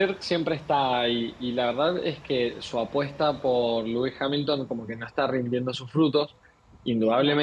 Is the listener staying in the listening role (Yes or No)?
Yes